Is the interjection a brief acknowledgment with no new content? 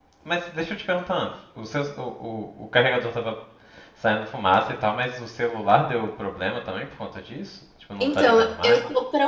No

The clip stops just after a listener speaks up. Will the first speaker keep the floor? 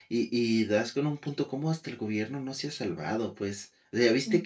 Yes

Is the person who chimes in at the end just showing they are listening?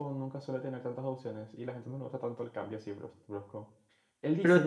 Yes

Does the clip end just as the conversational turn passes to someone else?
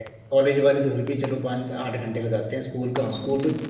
Yes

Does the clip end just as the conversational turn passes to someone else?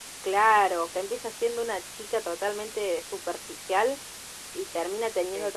No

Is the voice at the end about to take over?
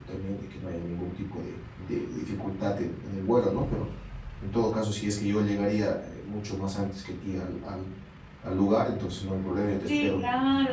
Yes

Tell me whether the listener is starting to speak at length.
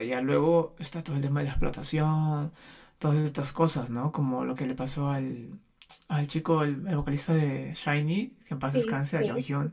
Yes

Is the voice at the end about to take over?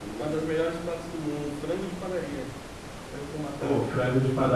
Yes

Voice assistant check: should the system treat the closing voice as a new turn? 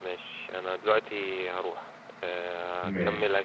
No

